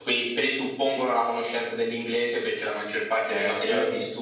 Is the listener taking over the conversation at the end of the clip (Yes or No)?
No